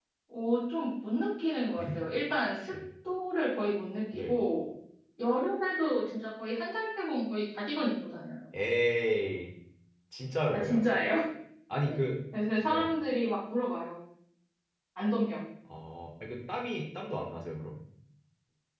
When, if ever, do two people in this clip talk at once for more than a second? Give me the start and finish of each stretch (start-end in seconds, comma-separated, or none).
none